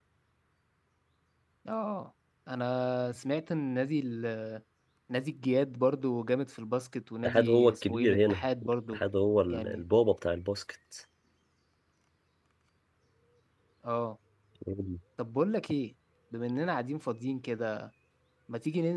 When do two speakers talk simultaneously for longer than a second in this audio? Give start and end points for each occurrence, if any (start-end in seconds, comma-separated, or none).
7.2-9.0